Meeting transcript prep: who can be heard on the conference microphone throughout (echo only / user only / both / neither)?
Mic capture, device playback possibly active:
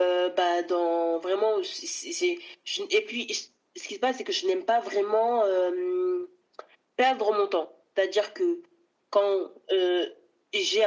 echo only